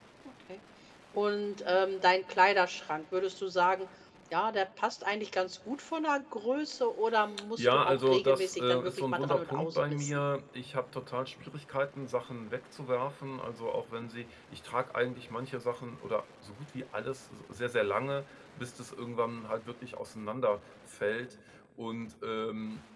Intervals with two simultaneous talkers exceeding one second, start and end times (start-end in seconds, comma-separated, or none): 7.6-10.2